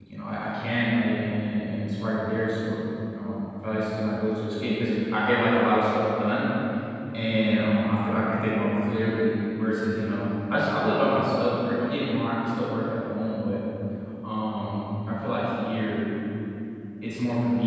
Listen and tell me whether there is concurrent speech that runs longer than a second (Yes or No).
No